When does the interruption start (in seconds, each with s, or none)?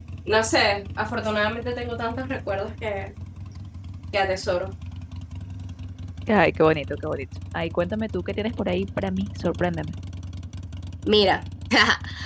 none